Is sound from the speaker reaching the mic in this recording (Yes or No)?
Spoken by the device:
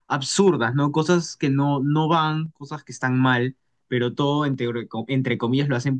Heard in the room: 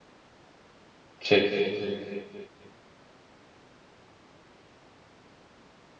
No